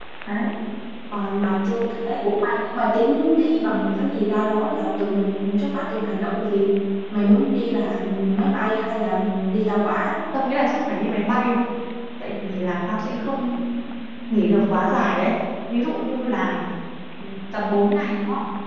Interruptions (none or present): none